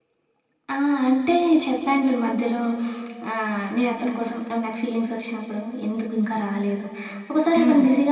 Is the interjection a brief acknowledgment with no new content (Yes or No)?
Yes